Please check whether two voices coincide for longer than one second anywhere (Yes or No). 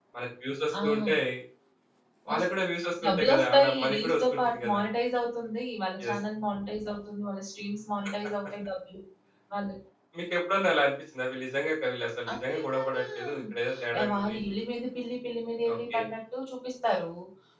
Yes